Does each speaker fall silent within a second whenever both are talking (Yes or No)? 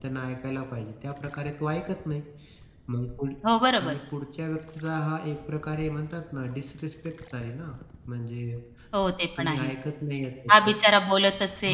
Yes